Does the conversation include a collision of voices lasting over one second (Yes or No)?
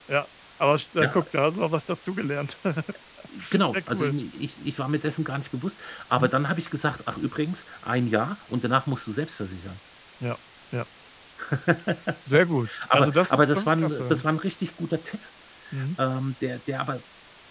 Yes